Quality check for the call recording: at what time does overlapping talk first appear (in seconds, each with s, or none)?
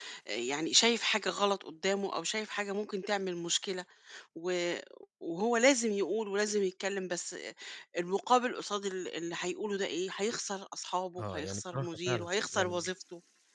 11.2 s